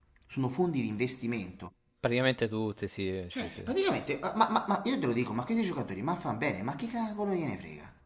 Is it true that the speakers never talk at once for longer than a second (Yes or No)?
Yes